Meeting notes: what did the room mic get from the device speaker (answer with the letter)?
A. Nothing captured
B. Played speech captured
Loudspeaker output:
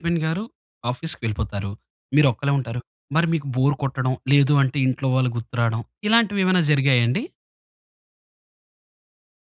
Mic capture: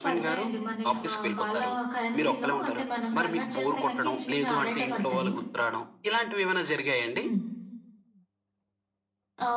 B